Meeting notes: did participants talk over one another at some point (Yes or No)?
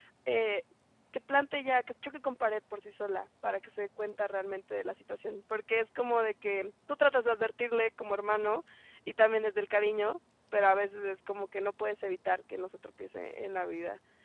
No